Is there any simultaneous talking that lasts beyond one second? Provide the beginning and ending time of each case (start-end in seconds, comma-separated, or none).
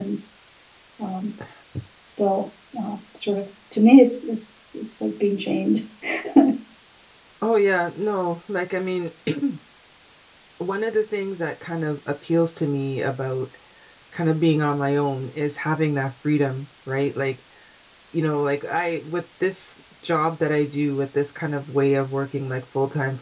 none